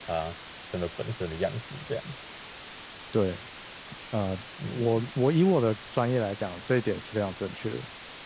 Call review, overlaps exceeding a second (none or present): none